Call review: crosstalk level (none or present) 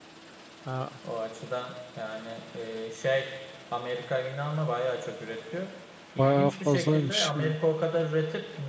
present